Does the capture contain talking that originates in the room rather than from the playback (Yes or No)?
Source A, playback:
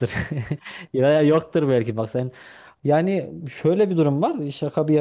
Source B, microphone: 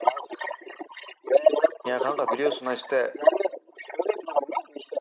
Yes